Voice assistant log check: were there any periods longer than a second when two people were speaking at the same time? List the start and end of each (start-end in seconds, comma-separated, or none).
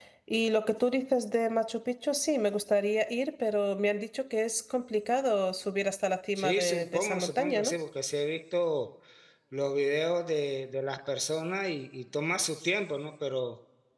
6.3-7.7